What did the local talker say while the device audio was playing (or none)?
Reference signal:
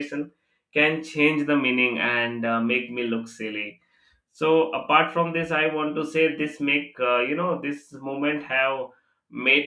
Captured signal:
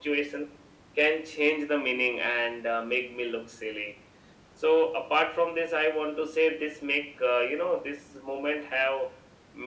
none